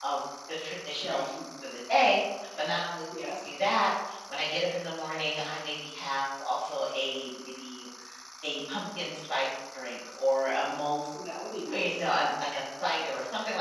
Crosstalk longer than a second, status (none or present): none